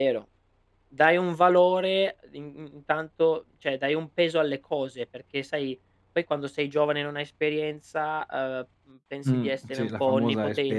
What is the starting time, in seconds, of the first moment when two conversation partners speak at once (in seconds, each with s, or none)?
9.2 s